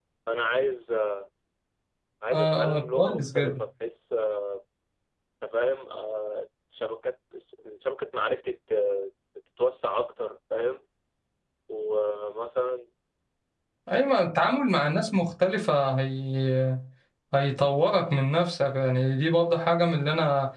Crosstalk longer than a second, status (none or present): present